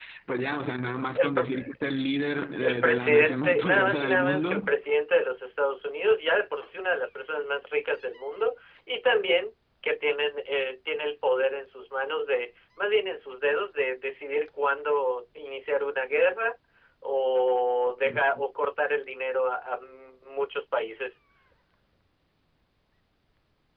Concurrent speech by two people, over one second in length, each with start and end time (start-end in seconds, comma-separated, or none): 2.6-4.7